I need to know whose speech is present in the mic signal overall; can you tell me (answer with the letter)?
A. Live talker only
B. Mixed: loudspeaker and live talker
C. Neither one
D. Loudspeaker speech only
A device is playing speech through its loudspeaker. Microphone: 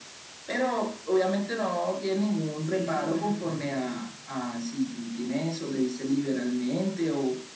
B